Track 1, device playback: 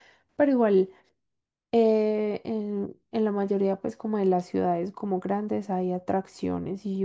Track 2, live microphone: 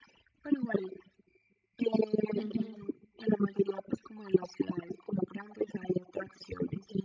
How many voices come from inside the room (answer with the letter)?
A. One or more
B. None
A